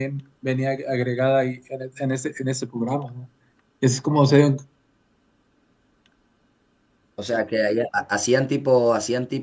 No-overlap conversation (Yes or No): Yes